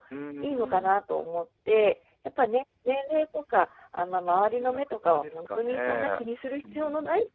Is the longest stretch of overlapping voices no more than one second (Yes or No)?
No